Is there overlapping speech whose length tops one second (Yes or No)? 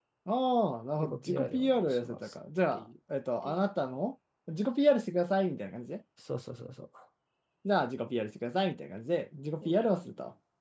Yes